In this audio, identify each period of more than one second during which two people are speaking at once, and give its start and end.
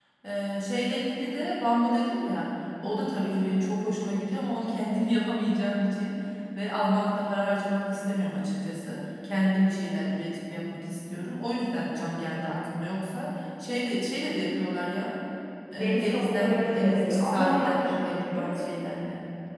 15.7-18.8

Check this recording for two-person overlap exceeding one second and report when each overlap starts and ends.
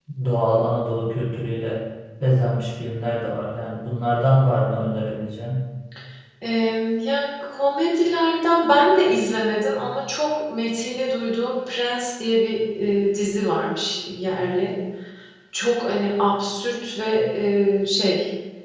none

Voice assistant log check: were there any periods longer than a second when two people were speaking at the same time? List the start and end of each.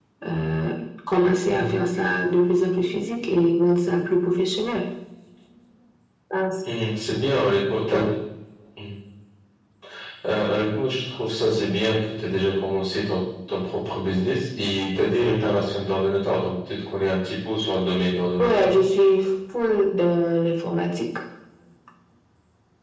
none

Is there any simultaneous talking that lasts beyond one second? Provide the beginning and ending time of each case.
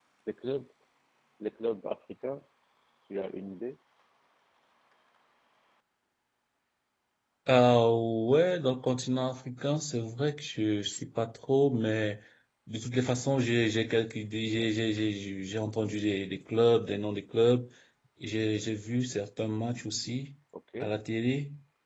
none

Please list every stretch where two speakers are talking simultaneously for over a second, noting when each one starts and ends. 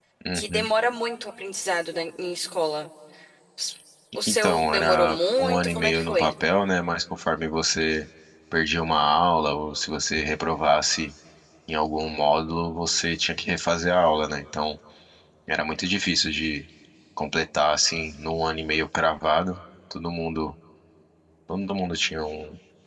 4.3-6.3

